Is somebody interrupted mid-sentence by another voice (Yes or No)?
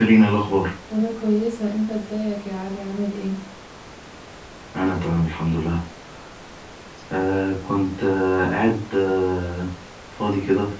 No